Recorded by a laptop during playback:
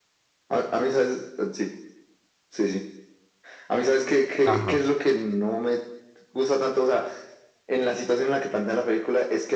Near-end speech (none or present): present